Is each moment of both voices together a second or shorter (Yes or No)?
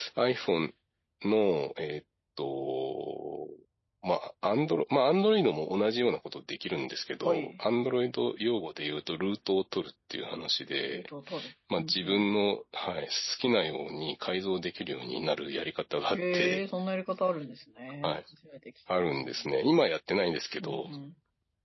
Yes